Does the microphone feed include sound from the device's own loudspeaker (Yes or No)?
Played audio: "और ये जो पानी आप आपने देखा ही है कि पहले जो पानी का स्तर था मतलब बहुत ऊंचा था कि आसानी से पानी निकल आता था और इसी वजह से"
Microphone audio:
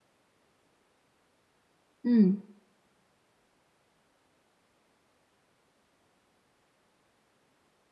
No